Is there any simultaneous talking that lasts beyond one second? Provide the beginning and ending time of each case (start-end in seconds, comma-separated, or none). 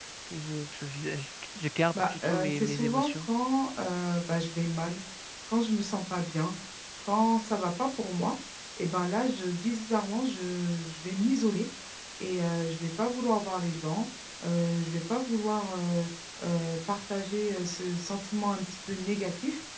2.0-3.2